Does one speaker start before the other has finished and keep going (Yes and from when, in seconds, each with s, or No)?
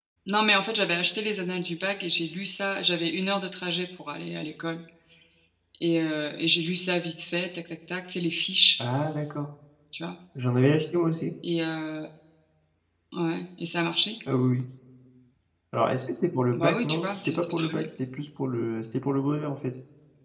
Yes, from 16.6 s